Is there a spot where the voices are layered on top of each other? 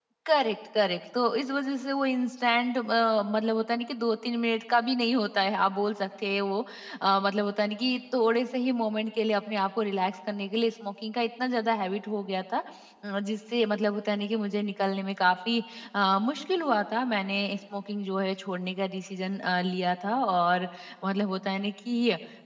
No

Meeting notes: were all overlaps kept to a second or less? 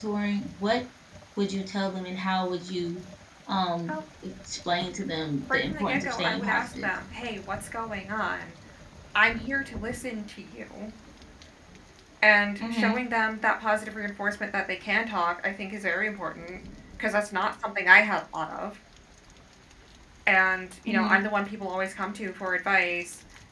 No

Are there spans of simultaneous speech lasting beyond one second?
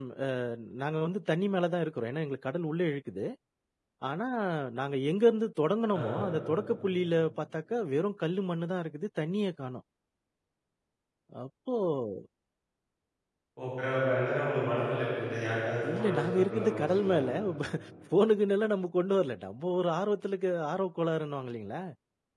Yes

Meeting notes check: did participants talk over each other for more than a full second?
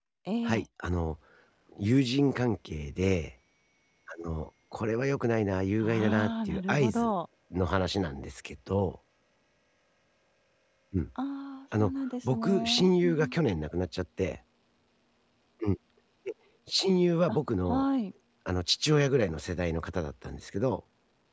Yes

